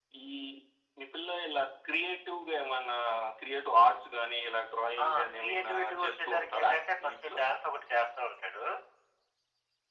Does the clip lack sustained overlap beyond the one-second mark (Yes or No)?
No